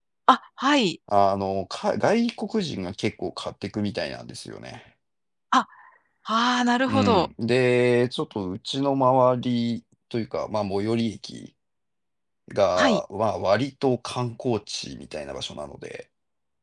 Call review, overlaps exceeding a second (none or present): none